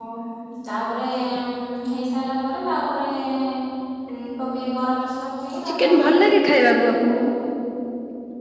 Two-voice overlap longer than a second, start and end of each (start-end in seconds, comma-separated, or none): 5.7-7.3